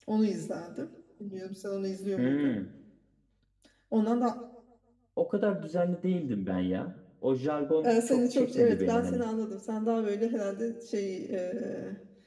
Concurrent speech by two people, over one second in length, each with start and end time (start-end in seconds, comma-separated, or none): 7.8-9.2